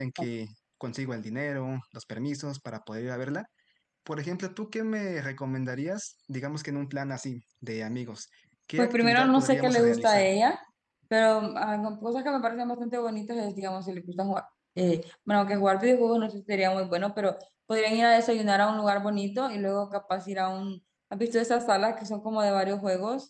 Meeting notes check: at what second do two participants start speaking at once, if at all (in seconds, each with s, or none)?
8.8 s